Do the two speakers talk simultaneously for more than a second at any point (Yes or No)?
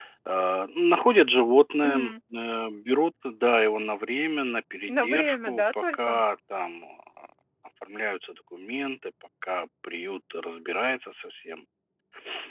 Yes